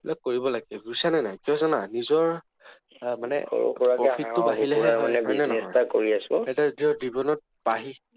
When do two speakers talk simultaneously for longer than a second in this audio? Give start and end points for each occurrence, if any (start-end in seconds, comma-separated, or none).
4.0-5.8